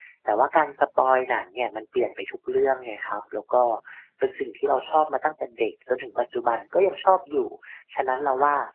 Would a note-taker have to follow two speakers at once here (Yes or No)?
No